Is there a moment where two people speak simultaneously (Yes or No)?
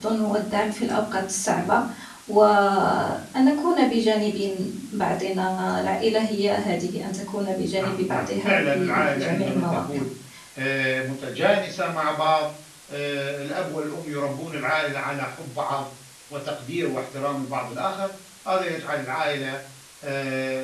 Yes